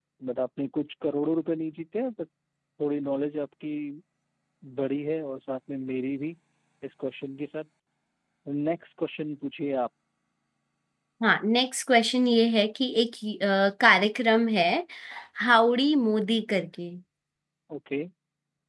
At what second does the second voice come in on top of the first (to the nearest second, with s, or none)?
none